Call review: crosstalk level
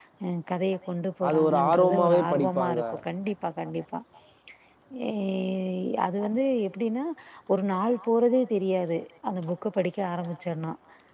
present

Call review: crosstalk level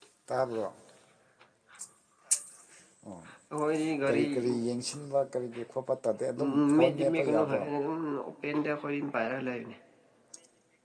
present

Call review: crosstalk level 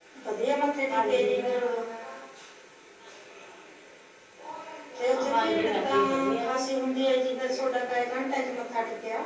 present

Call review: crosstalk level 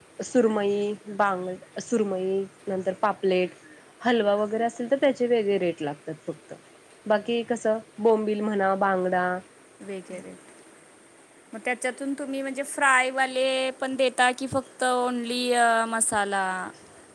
none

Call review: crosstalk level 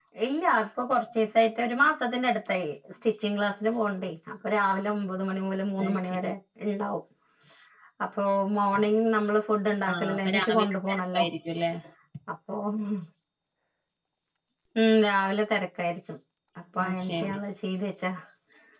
present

